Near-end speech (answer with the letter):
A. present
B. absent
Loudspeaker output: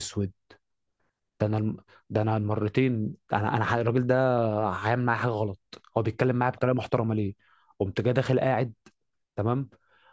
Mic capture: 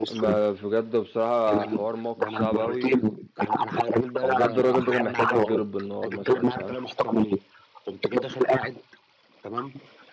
A